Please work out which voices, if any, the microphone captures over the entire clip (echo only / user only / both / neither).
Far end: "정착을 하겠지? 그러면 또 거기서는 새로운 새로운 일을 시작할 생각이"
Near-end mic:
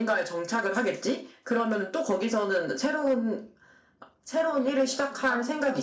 both